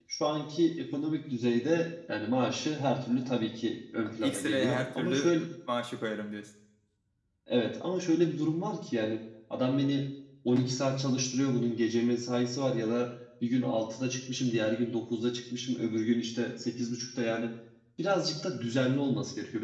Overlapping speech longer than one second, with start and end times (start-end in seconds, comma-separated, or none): 4.2-5.4